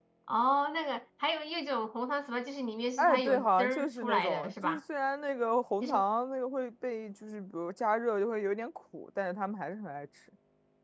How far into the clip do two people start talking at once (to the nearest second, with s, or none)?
3 s